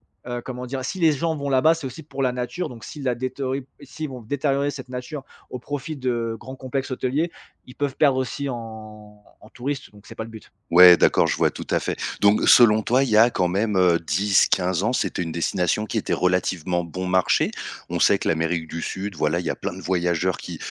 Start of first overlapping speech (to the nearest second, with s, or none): none